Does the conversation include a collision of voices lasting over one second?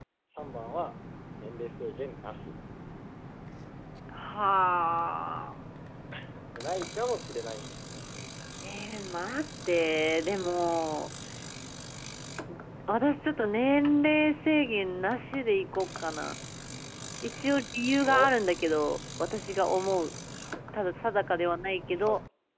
No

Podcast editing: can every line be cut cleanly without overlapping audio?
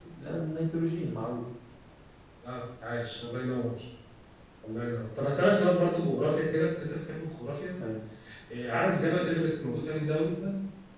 Yes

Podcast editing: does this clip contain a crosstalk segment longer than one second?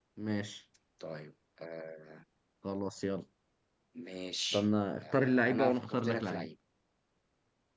Yes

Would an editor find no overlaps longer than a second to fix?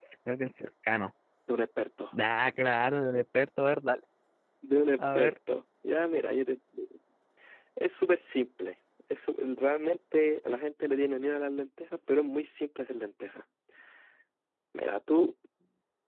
Yes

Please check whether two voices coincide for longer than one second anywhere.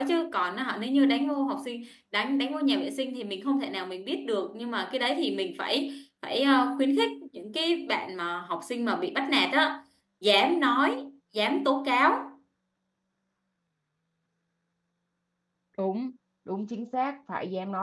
No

